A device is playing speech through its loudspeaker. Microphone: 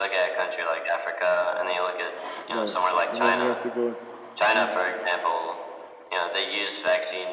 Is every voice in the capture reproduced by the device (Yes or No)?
No